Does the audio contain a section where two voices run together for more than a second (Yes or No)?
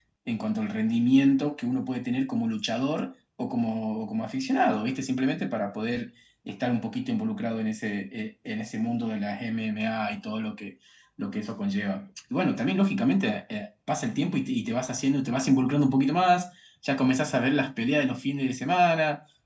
No